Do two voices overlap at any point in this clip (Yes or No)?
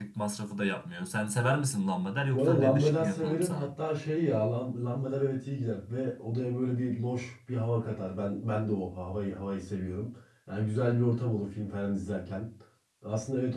Yes